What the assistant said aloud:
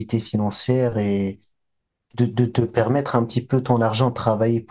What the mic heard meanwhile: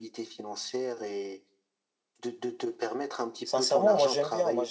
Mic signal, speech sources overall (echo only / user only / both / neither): both